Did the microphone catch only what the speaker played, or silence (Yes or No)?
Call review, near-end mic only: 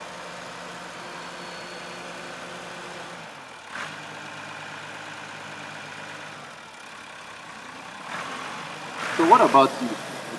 No